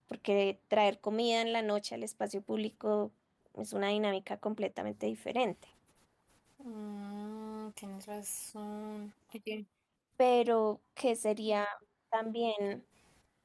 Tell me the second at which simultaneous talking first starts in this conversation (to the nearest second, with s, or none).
none